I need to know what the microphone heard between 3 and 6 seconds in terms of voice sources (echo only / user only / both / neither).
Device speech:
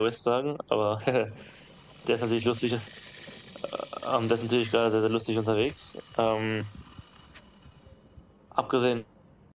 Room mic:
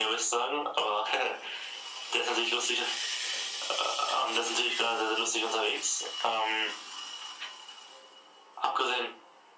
echo only